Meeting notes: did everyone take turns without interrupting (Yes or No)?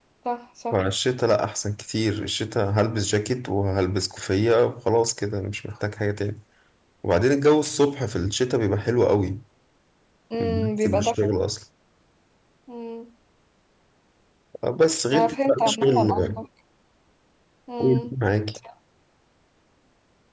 No